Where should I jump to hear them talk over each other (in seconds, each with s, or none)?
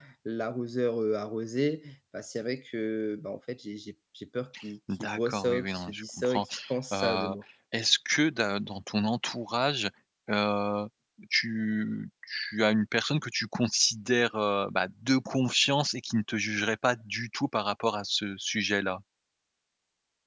5.0 s